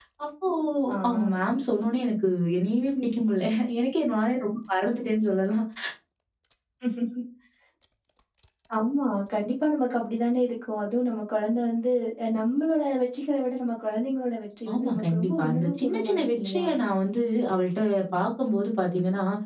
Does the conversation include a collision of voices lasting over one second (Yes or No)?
Yes